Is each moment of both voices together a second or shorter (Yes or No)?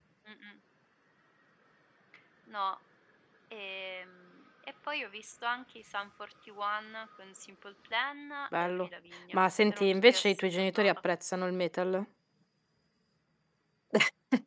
No